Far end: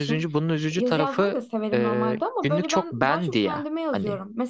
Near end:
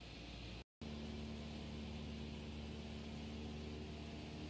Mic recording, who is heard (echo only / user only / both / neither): neither